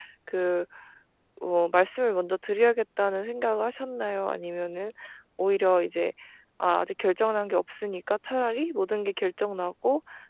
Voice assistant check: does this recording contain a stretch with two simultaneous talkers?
No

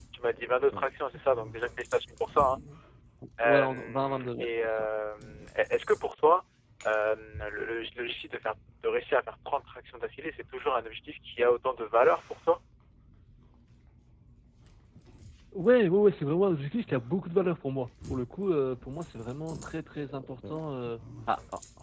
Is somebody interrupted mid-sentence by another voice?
Yes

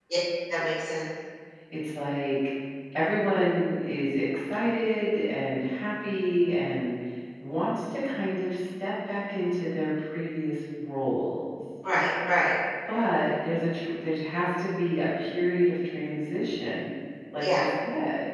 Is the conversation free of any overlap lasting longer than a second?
Yes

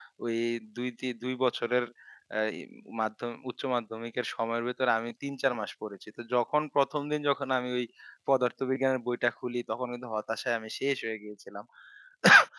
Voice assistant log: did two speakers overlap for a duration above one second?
No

